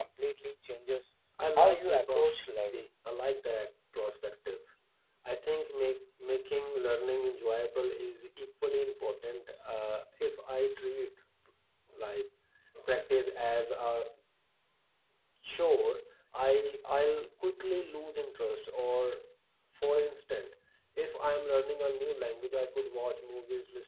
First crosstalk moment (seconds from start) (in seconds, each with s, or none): 1.6 s